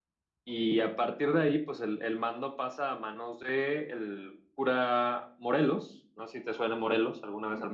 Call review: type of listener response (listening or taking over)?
taking over